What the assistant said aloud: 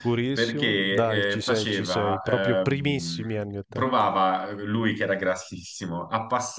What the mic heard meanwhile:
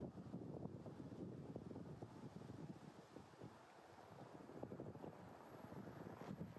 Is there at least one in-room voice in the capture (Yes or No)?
No